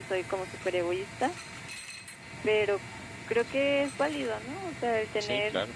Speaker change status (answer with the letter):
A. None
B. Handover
A